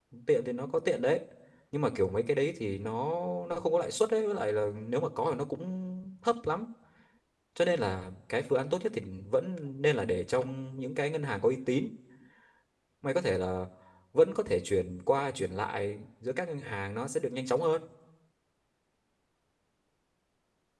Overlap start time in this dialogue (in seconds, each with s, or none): none